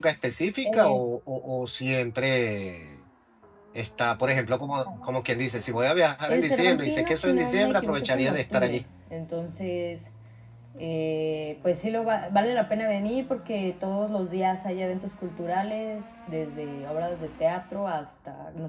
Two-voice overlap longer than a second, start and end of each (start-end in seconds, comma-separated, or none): 6.3-8.8